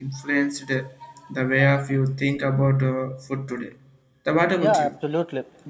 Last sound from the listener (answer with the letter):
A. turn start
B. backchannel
A